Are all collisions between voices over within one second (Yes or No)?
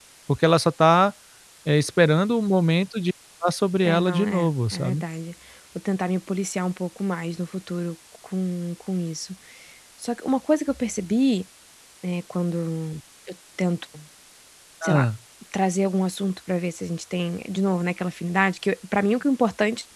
No